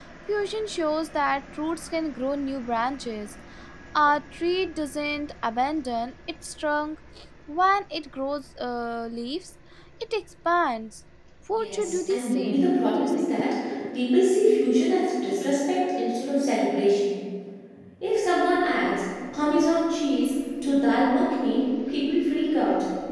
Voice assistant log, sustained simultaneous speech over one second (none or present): present